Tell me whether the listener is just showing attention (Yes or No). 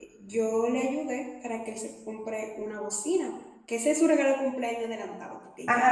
No